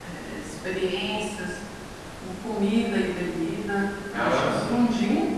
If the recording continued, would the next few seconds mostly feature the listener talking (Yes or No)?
No